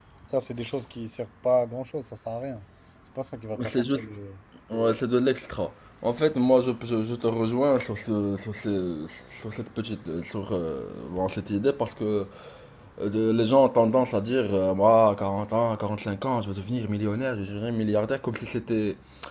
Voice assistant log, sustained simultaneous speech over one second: none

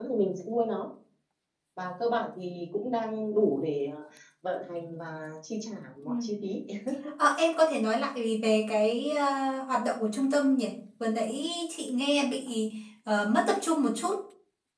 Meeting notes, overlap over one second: none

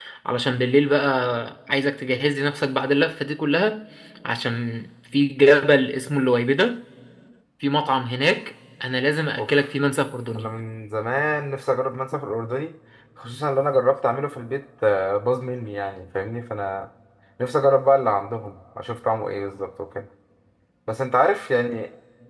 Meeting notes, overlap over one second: none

